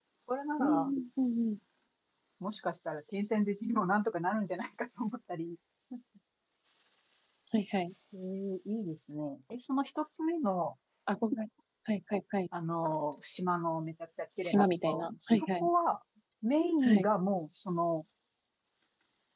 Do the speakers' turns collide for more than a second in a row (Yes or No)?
Yes